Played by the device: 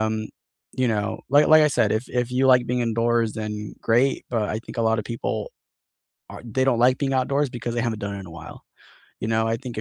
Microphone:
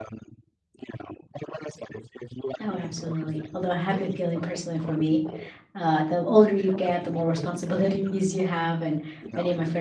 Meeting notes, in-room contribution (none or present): present